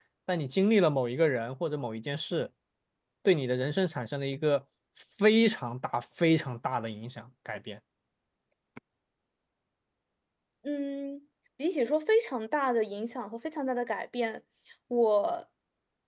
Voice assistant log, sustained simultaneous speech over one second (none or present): none